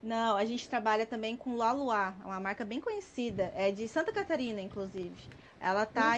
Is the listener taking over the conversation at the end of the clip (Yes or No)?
No